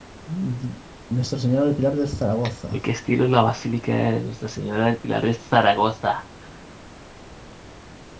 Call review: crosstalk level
none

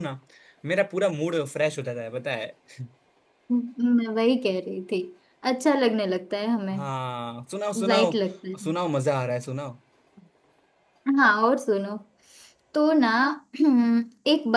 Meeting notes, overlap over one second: none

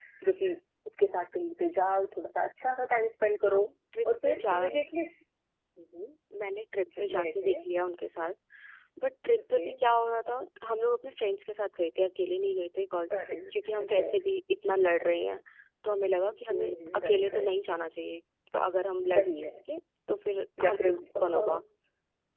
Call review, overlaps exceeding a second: present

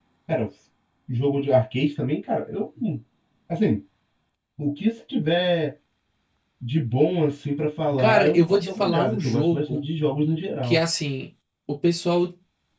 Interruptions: present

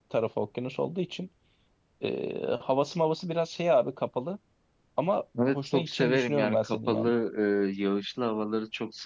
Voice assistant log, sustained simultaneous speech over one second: present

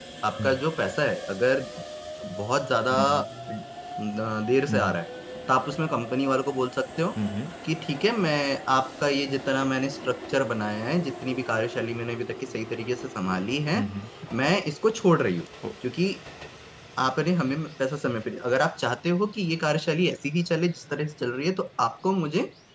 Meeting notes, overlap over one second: none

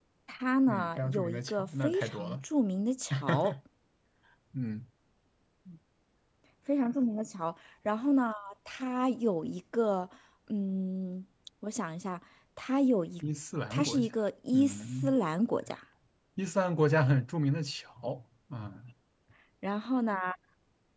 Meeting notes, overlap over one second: present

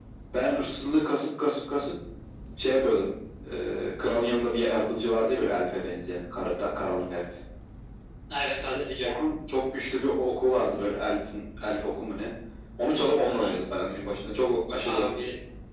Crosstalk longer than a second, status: none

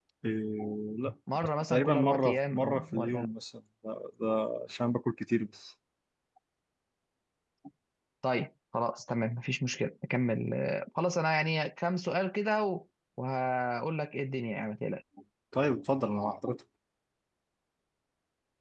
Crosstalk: present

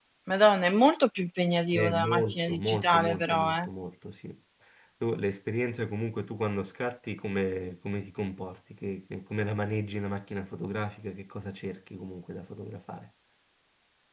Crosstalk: present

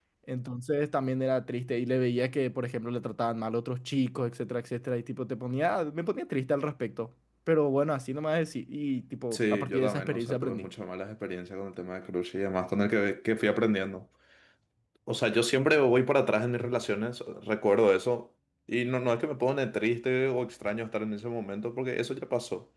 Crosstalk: present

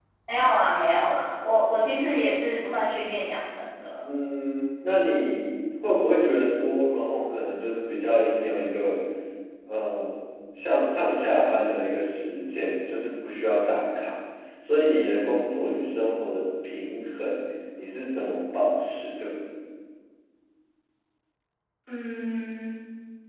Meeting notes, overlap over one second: none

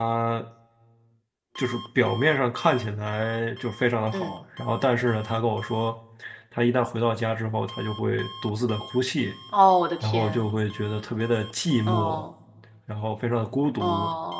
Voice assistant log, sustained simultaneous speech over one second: none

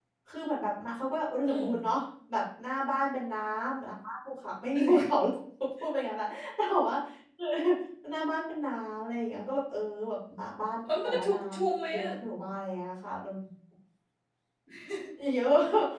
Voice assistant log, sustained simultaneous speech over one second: present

